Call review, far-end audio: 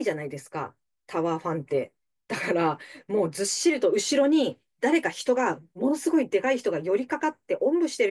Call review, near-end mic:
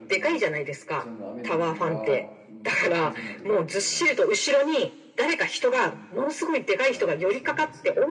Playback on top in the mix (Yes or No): Yes